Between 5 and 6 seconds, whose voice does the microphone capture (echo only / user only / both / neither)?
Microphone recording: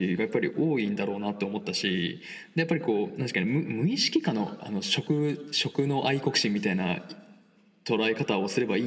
echo only